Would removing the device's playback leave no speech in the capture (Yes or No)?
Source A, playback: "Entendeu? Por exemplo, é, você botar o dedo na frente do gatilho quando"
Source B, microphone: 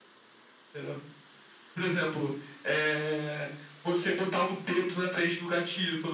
Yes